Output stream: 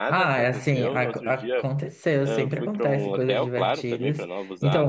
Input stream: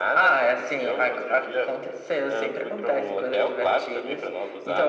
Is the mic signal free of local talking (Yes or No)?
Yes